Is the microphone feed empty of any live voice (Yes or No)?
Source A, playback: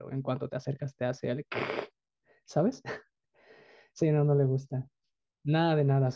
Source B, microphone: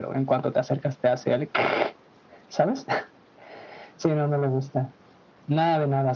Yes